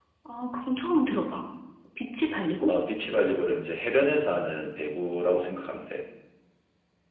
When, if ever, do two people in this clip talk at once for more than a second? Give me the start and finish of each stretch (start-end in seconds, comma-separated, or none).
none